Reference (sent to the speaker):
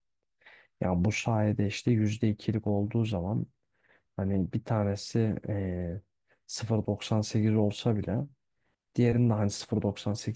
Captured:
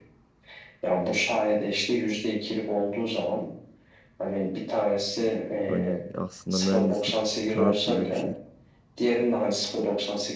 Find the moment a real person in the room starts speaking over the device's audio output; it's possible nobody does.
5.7 s

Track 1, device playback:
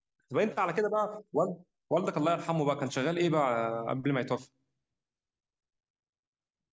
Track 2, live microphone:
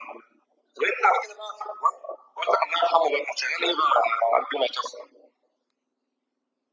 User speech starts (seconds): none

